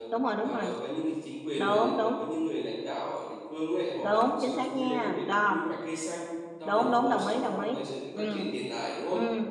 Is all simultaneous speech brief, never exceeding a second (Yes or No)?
No